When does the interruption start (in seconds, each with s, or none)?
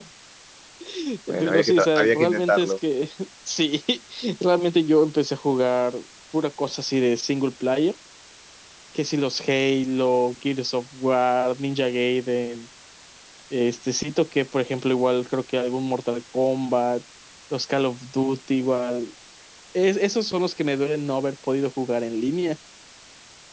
1.4 s